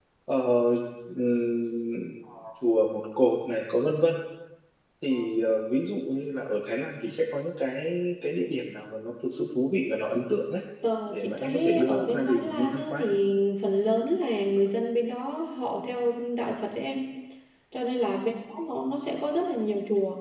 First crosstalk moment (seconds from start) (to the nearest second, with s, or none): 11 s